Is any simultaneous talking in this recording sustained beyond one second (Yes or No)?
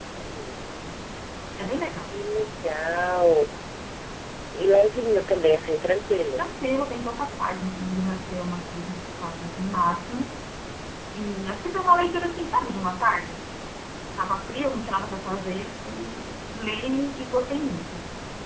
No